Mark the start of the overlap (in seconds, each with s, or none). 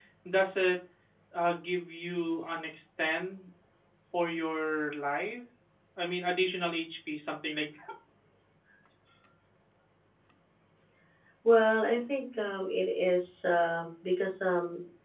none